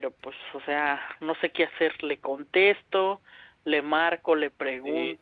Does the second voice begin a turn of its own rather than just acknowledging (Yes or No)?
Yes